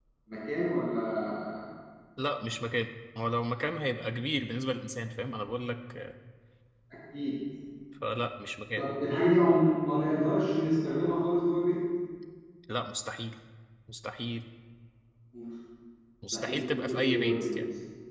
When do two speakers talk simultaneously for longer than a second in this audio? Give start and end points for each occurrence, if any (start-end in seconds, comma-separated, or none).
16.3-17.5